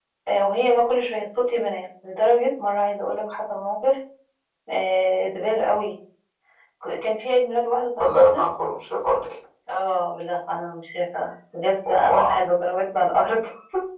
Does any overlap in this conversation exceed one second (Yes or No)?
No